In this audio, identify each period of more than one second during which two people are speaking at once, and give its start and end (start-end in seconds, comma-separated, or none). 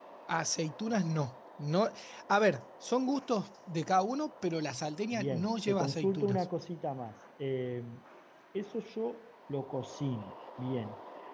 5.1-6.5